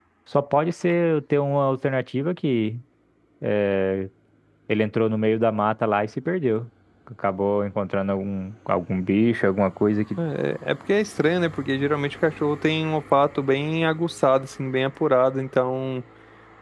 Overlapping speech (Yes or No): No